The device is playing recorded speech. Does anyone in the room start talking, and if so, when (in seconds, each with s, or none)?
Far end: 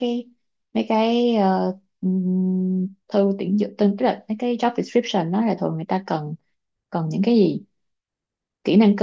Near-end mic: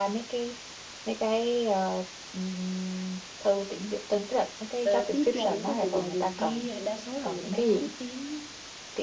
4.8 s